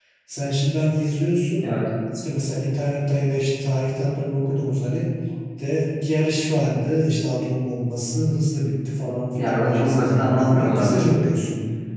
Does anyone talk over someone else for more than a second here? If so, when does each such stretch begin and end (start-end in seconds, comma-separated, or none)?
9.3-11.1